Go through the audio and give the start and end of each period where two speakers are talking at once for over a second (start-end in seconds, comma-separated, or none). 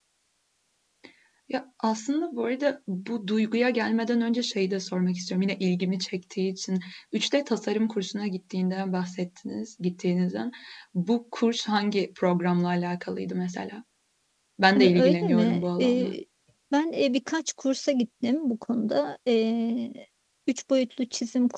14.8-16.1